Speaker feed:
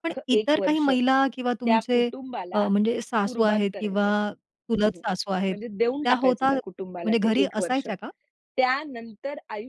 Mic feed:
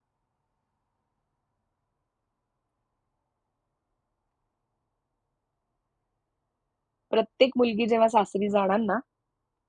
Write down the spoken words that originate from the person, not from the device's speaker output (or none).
प्रत्येक मुलगी जेव्हा सासरी जाणार ना,